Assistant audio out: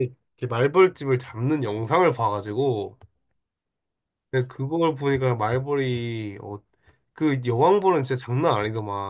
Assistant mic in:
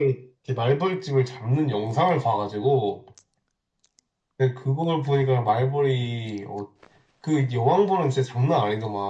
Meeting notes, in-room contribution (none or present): none